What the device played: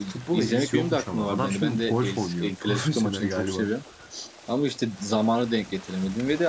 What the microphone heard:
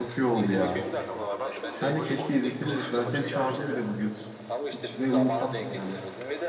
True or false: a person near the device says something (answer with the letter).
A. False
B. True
B